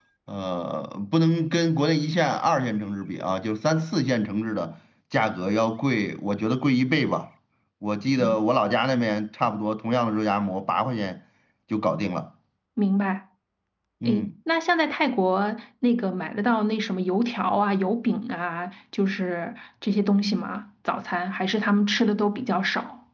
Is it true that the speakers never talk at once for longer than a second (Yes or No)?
Yes